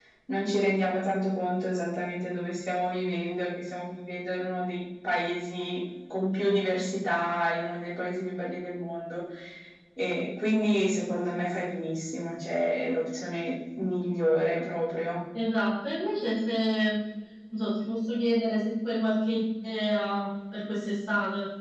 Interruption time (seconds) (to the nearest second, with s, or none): none